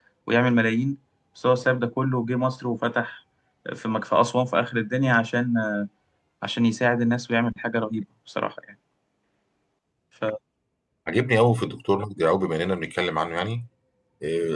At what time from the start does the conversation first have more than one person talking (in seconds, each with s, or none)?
none